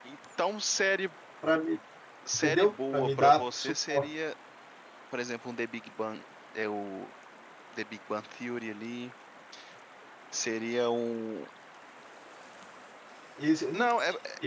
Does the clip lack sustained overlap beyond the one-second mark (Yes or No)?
No